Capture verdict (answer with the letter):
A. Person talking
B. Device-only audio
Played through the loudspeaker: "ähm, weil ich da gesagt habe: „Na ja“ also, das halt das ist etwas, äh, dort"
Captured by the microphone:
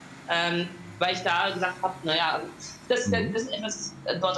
A